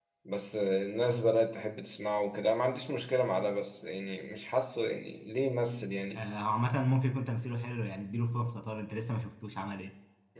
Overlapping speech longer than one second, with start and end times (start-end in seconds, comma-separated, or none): none